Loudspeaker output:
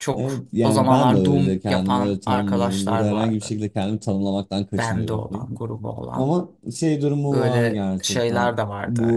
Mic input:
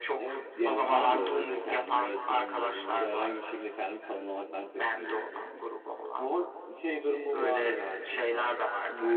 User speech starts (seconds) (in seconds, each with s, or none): none